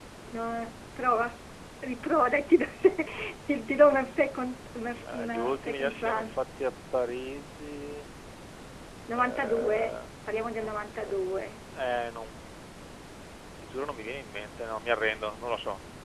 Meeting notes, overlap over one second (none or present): present